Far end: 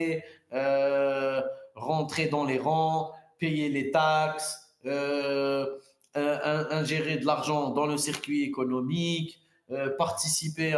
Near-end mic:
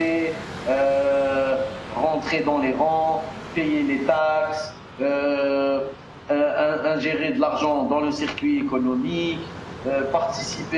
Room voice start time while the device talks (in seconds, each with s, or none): none